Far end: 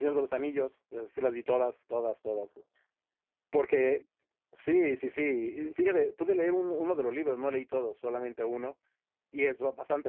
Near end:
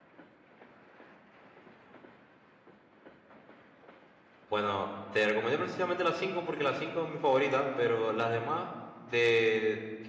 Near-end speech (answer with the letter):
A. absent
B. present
B